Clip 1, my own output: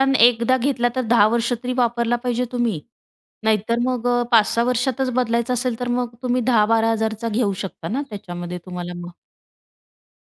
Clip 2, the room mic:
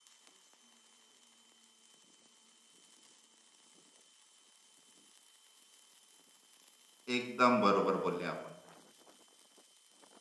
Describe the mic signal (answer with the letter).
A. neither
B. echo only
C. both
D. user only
D